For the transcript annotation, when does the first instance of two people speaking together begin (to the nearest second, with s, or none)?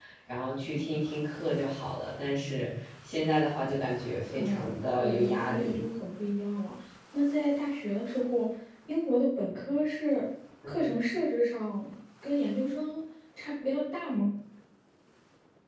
4 s